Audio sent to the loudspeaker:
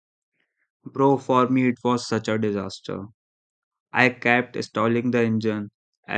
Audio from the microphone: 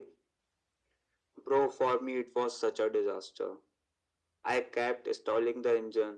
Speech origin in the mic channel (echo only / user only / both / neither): echo only